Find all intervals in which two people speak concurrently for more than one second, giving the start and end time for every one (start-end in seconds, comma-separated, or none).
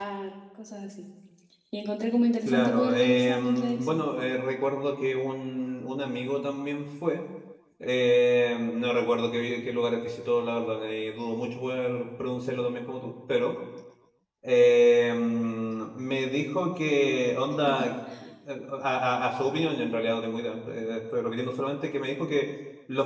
2.5-4.0